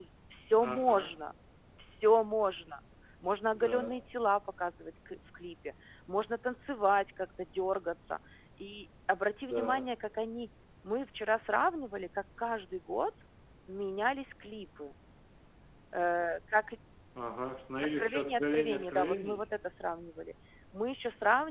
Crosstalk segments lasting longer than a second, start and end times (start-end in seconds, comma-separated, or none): 18.0-19.4